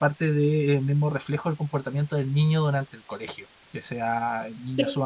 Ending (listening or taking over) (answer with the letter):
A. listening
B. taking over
A